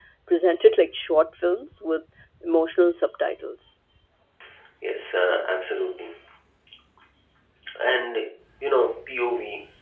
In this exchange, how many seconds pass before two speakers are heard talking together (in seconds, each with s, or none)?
none